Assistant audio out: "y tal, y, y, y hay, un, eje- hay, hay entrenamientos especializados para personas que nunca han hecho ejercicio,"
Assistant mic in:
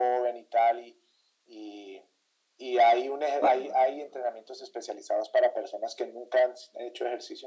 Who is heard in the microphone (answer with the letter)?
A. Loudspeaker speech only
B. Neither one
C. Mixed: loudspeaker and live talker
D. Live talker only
C